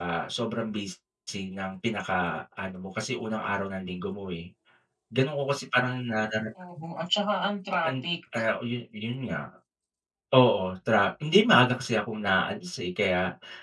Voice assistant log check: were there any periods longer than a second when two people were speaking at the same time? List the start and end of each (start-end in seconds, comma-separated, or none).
none